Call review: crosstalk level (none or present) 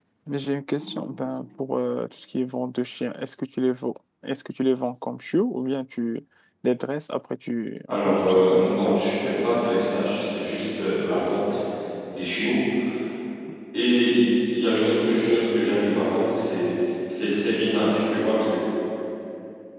present